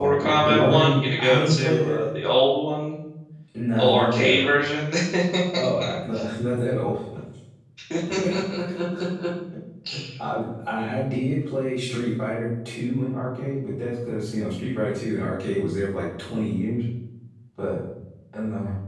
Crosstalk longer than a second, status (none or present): present